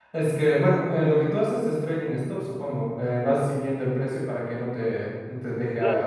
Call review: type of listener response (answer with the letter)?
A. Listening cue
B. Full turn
B